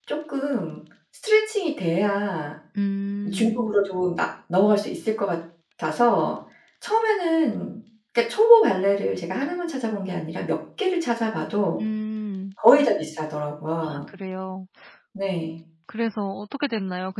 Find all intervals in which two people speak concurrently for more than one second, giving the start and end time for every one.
none

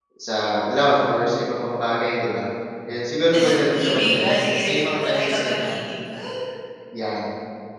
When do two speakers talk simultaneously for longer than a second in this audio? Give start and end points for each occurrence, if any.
3.3-5.8

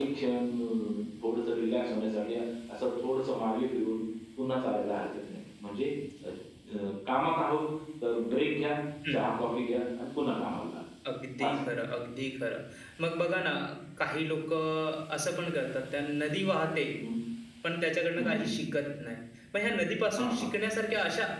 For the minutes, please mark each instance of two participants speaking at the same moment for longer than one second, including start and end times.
none

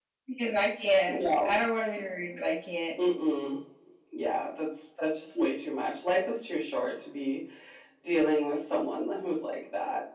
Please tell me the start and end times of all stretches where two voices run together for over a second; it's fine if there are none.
none

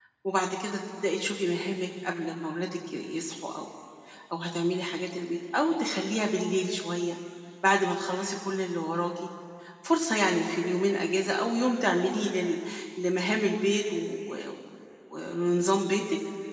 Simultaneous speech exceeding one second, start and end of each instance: none

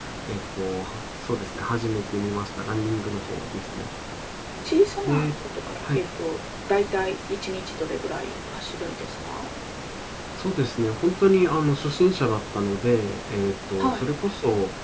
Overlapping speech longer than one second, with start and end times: none

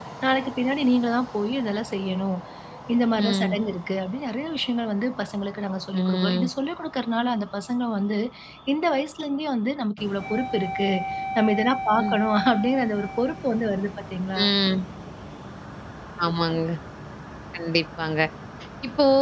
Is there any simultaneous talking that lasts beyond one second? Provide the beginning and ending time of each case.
none

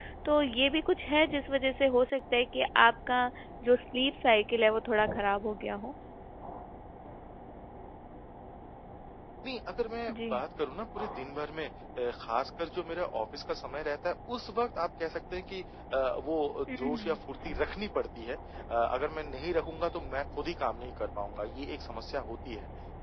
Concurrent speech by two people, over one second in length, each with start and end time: none

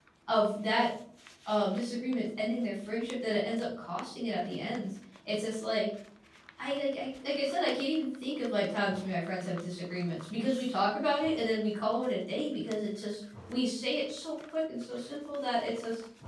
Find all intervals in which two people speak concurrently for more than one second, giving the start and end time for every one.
none

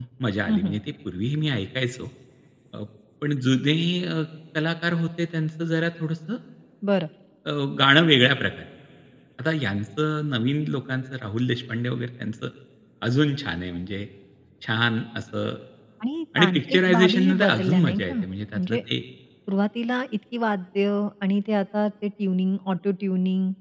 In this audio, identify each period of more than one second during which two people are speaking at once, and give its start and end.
16.4-18.1

